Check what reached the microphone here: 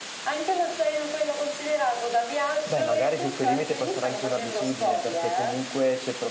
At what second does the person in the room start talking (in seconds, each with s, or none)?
2.6 s